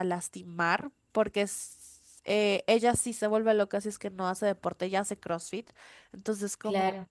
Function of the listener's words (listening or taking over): listening